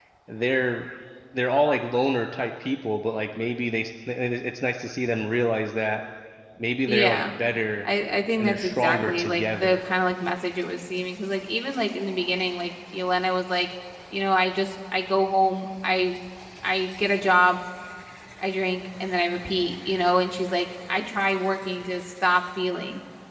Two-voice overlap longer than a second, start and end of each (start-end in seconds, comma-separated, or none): 8.4-9.8